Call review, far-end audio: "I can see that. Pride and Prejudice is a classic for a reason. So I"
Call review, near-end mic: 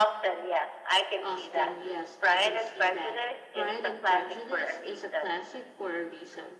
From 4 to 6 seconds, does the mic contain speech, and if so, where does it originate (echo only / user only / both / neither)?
both